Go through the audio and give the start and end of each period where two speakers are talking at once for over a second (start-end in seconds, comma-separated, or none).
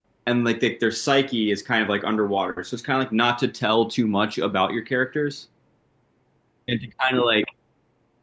none